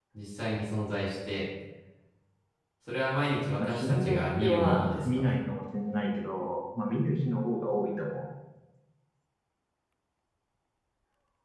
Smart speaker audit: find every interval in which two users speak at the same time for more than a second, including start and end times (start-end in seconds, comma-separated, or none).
3.6-5.4